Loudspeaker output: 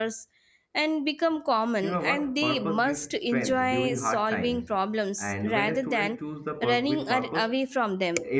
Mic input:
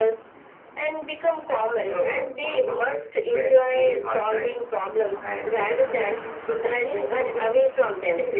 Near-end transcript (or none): none